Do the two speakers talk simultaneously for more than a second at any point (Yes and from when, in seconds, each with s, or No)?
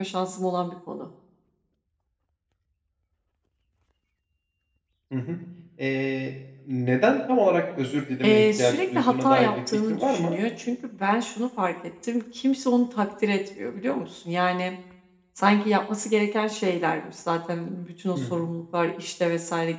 Yes, from 8.2 s